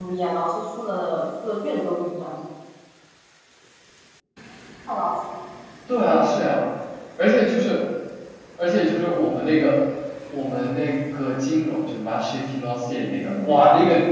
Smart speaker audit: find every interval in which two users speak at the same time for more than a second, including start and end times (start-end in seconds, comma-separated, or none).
none